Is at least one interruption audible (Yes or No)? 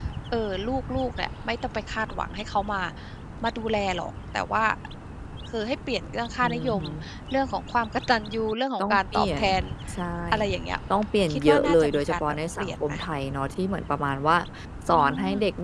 Yes